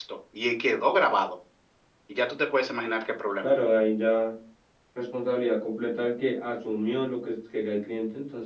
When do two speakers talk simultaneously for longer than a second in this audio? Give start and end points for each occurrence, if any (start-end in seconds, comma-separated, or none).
none